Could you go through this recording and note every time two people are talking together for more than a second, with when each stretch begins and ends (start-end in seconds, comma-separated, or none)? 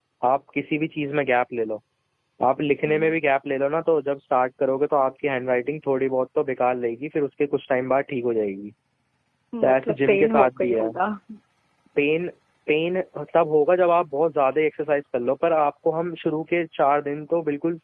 9.6-10.9